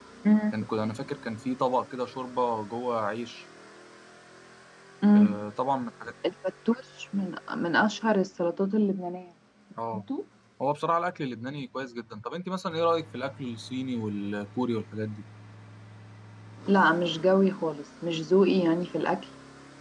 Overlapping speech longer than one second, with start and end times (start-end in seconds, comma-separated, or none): none